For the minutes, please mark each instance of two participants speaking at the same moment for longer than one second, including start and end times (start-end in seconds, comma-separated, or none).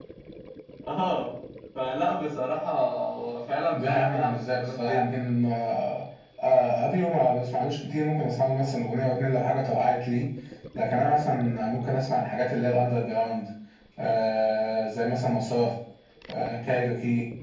3.7-5.2